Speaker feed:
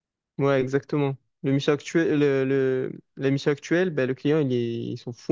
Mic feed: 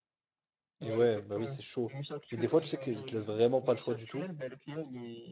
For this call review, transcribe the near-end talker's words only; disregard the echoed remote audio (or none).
Et ouais, bah oui, c'est chaud. Mais des fois, tu sais qu'ils te laissent vraiment pas le choix du tout.